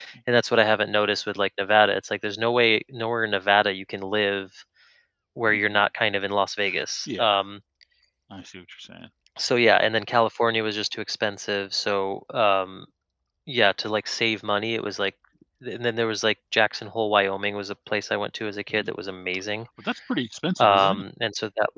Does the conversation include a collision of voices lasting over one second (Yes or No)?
No